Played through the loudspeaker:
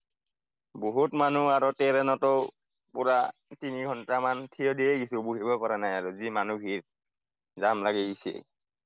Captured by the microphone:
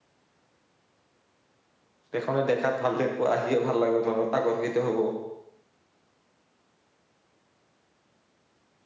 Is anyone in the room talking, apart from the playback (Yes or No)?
Yes